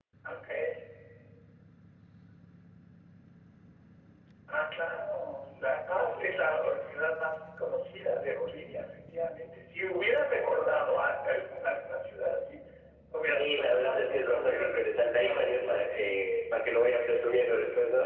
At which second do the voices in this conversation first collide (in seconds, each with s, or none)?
13.4 s